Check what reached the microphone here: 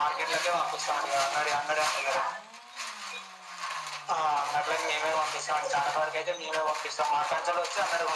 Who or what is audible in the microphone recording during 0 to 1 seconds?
echo only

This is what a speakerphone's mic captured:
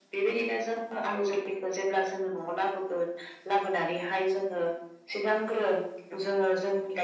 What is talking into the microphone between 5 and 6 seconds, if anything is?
echo only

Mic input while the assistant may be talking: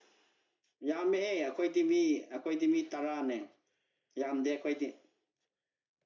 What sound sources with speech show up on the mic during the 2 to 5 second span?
echo only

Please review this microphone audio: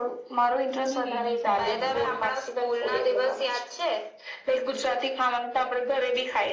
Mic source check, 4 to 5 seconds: echo only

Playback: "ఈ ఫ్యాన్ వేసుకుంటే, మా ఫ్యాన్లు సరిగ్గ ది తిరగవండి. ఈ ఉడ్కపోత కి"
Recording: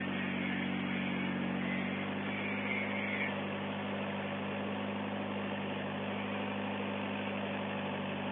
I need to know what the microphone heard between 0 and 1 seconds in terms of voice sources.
neither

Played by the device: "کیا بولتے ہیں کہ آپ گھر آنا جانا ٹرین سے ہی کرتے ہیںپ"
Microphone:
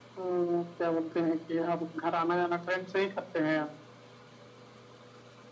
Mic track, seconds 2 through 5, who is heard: echo only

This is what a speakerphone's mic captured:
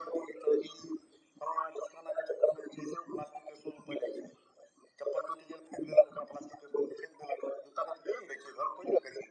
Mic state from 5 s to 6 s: echo only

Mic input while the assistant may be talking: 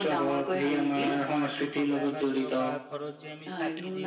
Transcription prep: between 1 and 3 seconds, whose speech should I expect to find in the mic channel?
both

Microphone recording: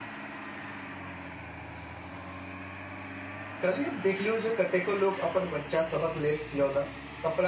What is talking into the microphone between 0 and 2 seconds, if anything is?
neither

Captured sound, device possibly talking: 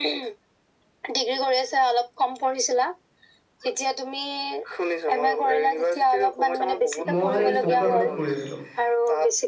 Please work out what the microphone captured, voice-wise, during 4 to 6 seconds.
echo only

